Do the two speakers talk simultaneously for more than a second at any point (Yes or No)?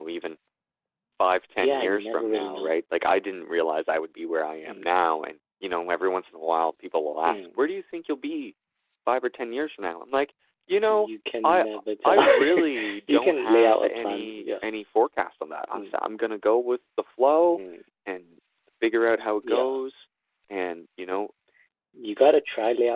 Yes